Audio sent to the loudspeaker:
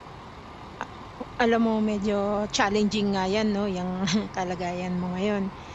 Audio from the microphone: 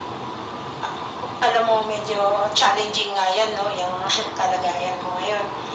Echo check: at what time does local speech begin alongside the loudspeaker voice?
none

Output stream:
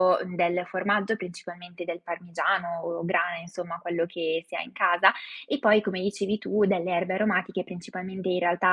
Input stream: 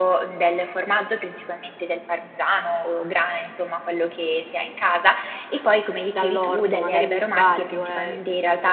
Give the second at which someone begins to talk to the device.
6 s

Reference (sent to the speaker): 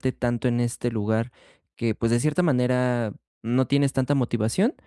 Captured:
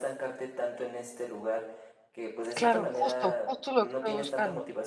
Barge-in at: 3 s

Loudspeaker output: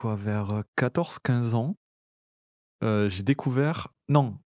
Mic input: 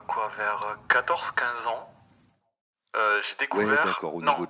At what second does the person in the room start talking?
4 s

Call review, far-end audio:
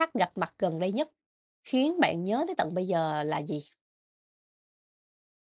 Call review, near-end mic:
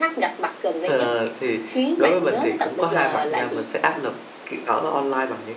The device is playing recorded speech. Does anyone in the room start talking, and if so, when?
1 s

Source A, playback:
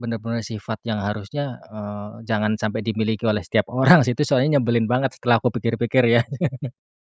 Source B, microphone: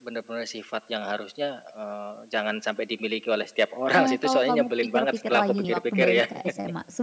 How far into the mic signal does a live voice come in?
4 s

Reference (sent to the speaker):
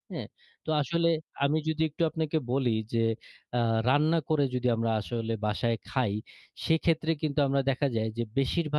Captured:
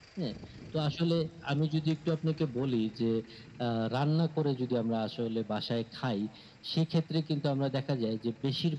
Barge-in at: none

